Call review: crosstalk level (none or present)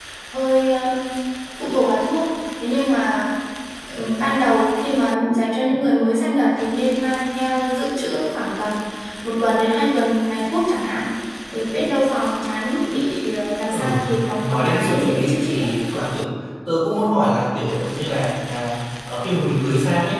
present